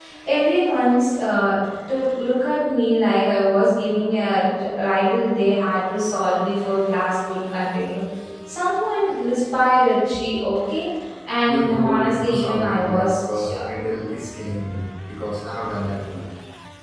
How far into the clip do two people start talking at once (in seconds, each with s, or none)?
11.5 s